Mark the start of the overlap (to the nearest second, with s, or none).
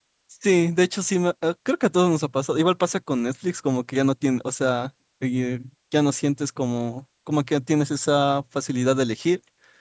none